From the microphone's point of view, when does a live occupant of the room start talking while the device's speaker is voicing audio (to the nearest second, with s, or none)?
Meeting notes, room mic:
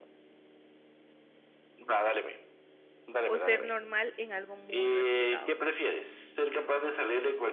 3 s